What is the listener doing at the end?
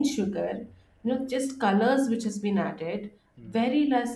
listening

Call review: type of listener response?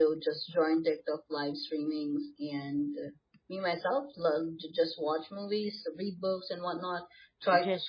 listening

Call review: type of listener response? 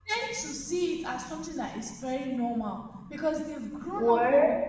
listening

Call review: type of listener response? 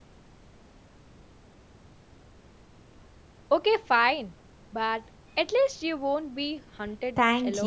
taking over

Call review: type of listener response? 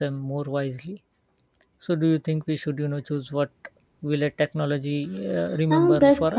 taking over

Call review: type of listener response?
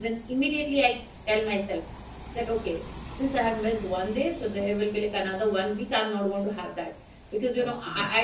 listening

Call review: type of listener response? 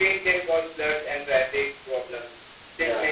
listening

